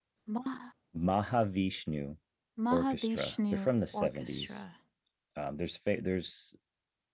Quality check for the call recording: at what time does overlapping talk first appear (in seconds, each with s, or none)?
2.7 s